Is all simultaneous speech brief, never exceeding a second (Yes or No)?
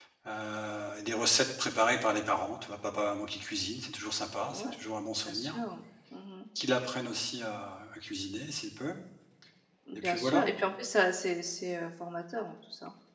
Yes